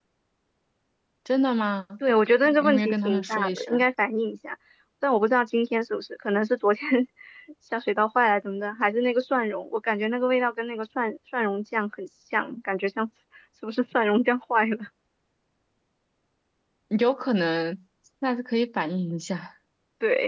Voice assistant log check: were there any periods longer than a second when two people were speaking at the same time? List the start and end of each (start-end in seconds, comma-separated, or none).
2.5-3.8